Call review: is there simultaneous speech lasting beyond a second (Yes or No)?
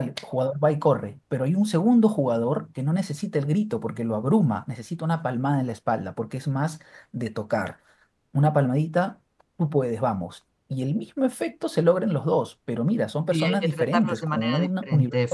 Yes